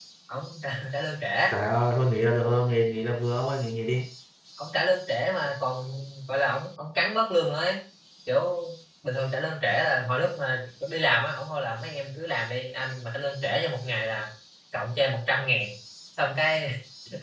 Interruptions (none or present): none